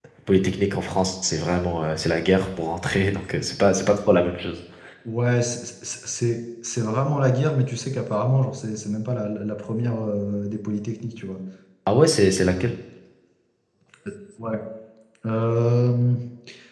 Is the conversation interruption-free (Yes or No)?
Yes